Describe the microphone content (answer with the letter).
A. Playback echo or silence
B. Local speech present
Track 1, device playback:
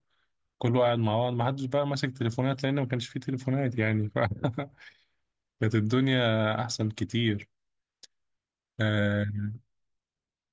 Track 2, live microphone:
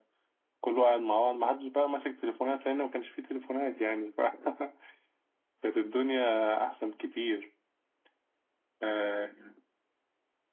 A